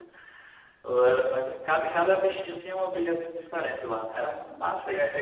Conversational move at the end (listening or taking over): taking over